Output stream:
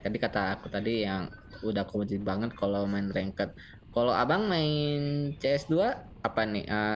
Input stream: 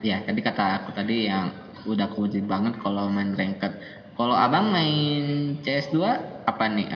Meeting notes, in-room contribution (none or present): present